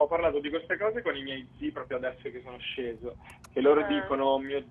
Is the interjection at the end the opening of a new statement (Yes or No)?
No